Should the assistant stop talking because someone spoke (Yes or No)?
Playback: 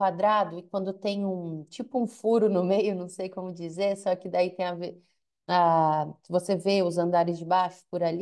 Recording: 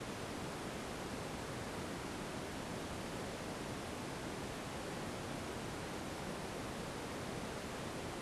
No